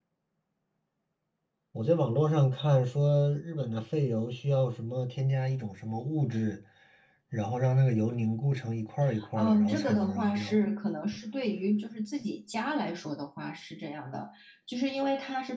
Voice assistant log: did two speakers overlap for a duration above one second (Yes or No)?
Yes